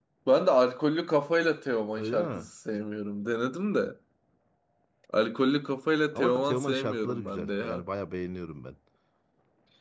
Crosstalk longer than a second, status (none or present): present